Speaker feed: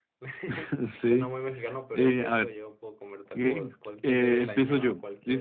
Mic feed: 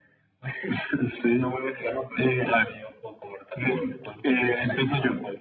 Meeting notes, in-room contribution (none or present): none